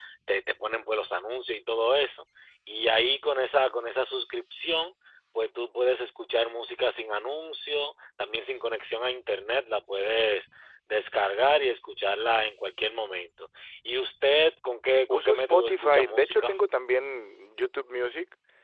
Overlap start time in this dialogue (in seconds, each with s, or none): 15.1 s